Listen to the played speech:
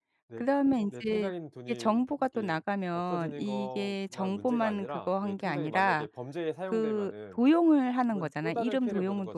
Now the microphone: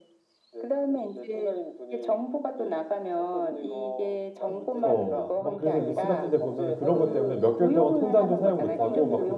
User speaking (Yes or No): Yes